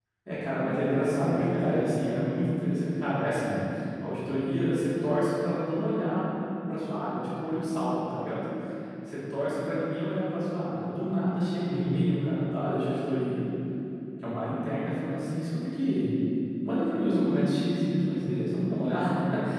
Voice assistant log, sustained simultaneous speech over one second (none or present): present